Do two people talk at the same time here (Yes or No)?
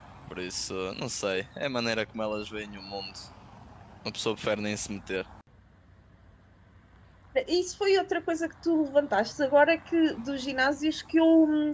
No